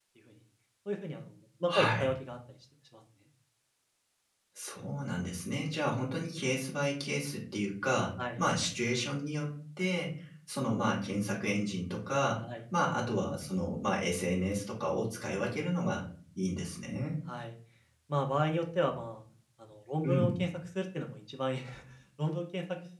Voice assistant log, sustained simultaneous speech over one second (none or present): none